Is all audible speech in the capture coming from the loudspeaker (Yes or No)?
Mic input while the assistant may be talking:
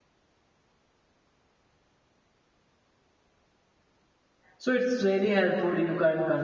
No